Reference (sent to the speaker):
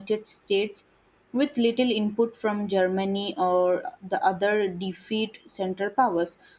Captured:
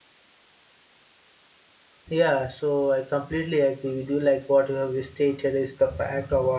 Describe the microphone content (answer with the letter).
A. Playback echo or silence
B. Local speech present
B